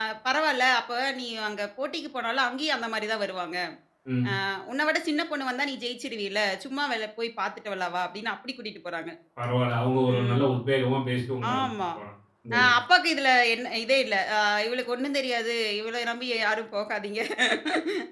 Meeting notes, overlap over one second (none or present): none